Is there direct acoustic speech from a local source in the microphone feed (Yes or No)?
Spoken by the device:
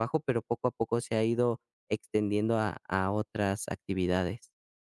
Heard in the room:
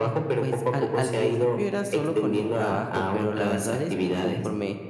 Yes